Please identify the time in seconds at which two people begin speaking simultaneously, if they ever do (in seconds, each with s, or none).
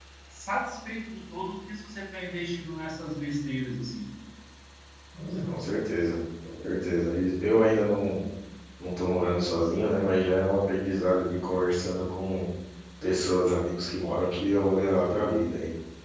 none